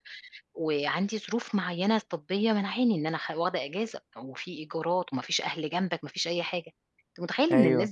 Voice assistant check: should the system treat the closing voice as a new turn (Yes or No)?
No